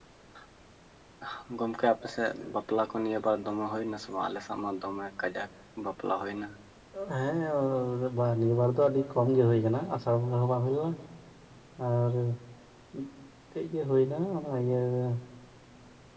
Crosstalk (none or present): none